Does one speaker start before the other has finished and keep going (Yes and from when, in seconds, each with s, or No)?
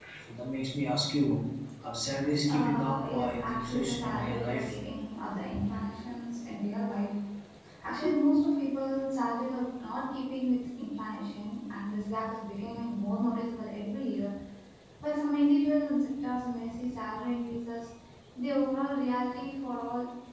Yes, from 2.5 s